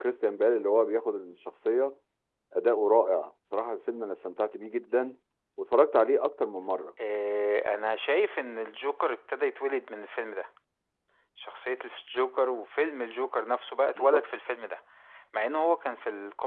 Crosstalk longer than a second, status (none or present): none